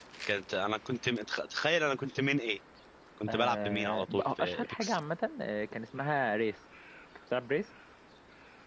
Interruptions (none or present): present